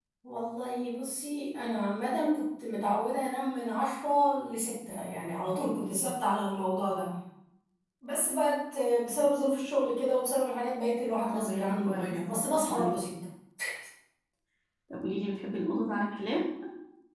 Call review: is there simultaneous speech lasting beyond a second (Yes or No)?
Yes